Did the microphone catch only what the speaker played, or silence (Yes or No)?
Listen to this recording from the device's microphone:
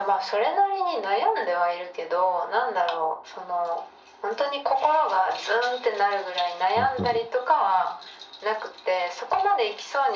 No